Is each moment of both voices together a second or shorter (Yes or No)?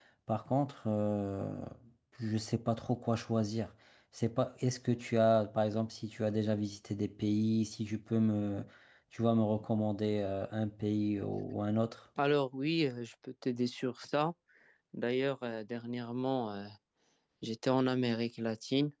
Yes